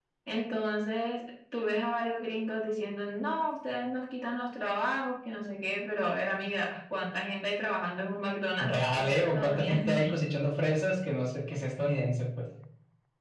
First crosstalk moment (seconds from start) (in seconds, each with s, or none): 8.6 s